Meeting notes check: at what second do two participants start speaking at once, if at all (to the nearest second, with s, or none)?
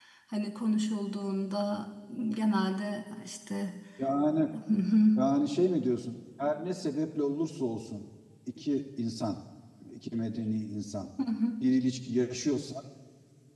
none